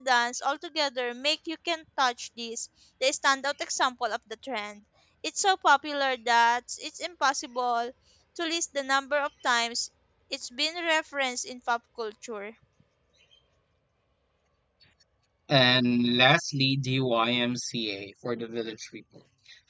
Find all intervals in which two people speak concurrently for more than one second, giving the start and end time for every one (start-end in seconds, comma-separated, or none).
none